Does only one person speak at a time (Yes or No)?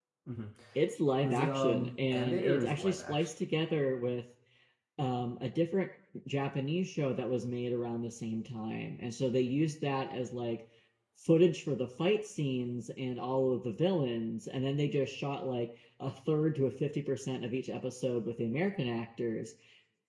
No